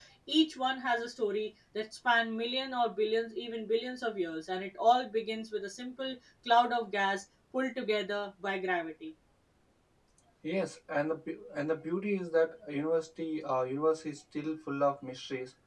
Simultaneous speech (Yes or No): No